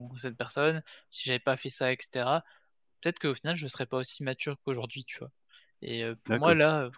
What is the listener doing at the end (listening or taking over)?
listening